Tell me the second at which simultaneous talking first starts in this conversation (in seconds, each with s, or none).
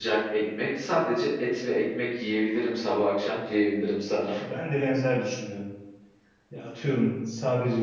none